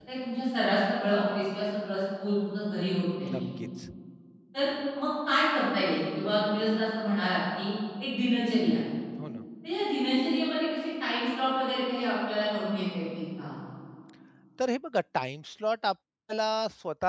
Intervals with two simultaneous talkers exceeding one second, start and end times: none

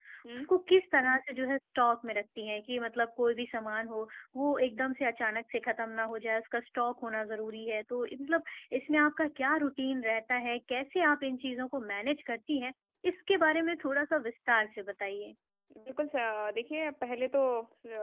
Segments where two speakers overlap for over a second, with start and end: none

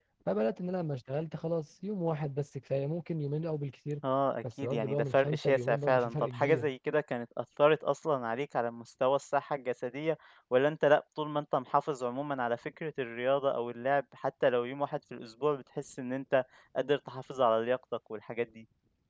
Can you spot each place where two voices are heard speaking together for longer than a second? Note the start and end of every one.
4.6-6.7

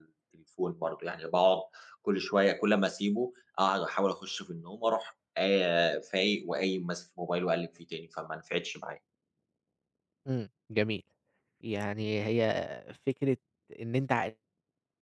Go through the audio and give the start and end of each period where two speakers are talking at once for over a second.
none

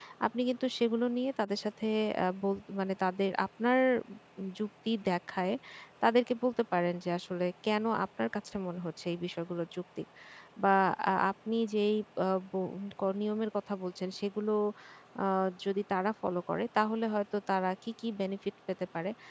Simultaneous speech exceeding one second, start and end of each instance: none

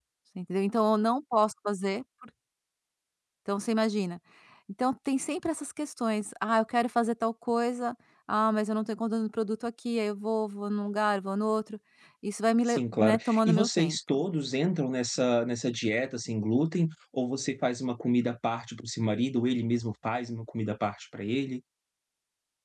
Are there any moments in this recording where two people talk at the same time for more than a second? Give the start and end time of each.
12.6-14.2

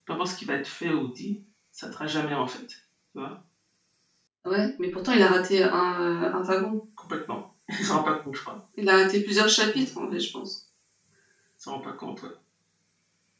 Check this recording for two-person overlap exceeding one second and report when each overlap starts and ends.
none

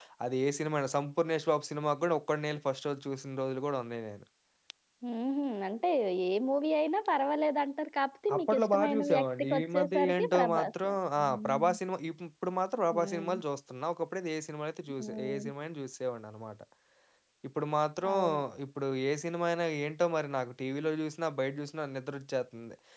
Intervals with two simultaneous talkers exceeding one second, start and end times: 8.3-11.7

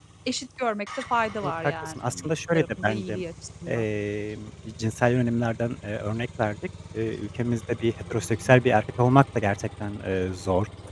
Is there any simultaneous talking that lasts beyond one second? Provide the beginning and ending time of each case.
1.4-3.2

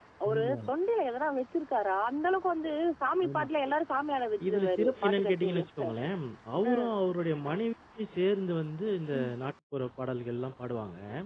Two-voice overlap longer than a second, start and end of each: 4.5-5.8

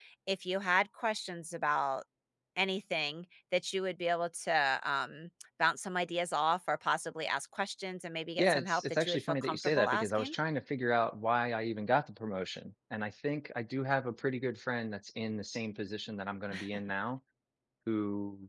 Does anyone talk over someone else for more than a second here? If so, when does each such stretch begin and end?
8.4-10.3

